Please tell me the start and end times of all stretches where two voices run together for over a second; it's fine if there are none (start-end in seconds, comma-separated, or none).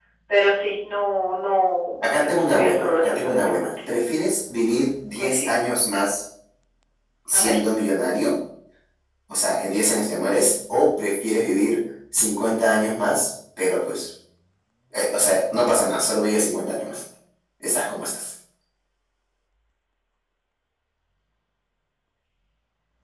2.0-3.7